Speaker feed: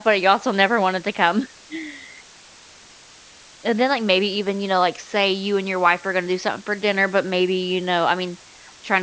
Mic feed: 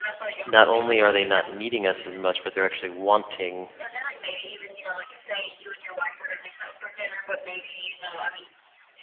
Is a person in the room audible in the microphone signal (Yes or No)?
Yes